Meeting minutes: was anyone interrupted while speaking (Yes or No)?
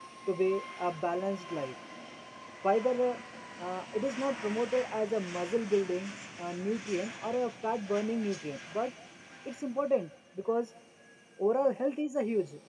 No